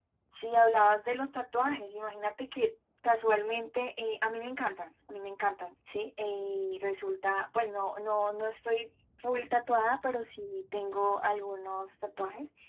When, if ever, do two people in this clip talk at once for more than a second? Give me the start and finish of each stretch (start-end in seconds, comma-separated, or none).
none